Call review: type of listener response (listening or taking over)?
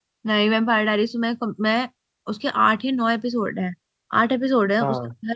listening